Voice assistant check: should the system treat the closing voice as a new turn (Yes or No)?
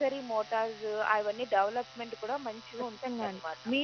Yes